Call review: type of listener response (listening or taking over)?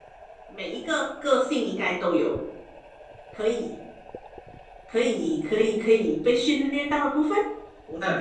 taking over